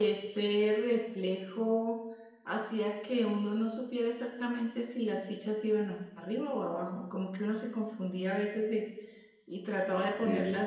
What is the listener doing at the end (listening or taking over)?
listening